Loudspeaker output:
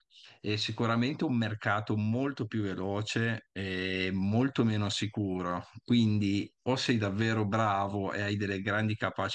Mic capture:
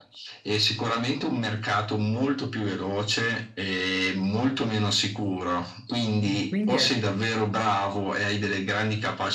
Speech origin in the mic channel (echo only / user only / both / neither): both